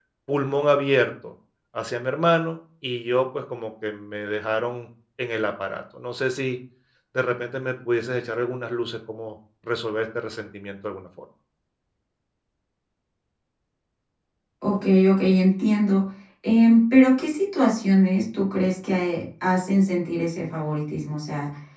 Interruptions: none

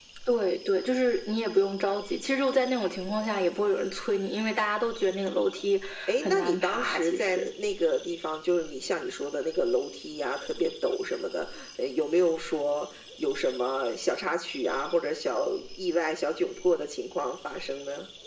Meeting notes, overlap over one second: present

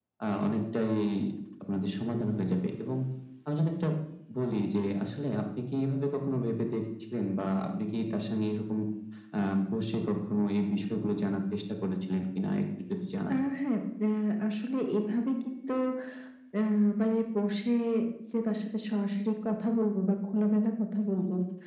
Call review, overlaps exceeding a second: none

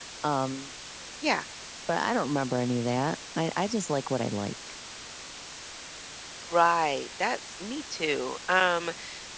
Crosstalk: none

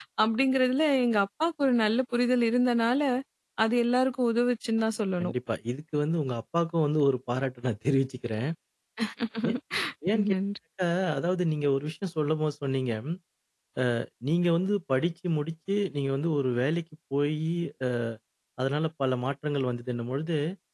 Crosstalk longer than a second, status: none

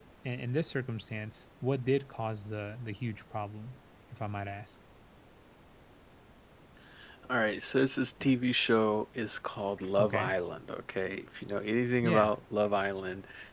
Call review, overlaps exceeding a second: none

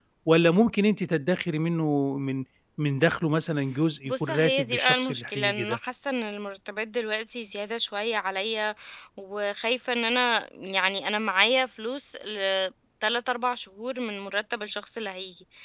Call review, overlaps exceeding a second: present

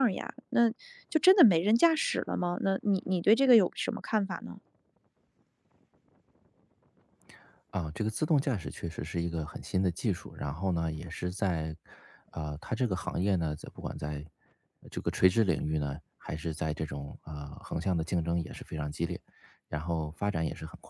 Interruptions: none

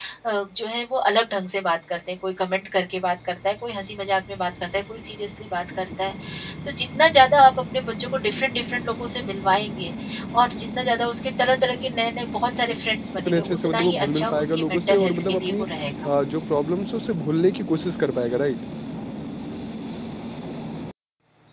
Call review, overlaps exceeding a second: present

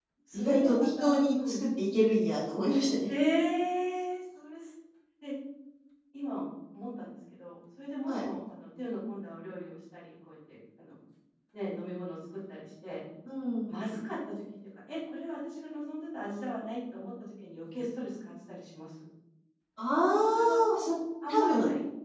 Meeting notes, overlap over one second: present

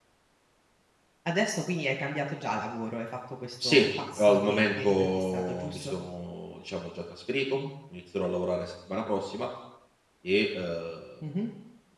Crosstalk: present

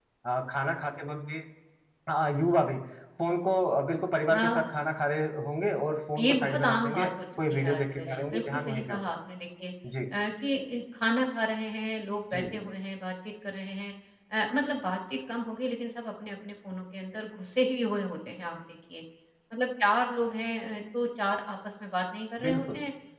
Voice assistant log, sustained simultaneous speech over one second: present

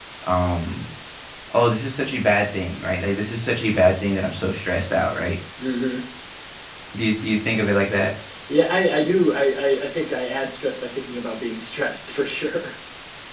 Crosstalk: none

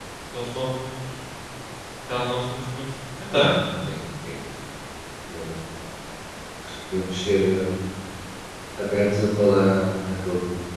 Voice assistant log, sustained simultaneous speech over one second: none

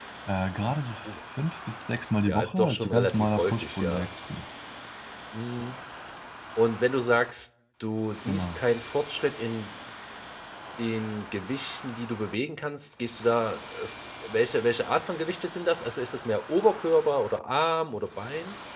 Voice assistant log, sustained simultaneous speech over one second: present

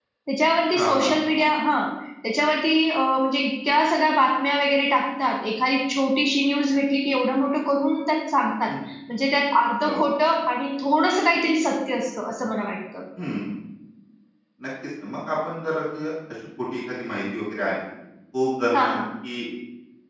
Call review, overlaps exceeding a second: none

